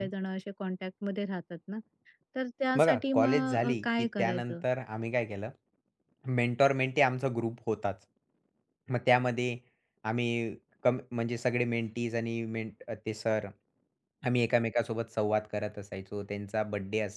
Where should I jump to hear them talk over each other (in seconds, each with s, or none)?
2.8 s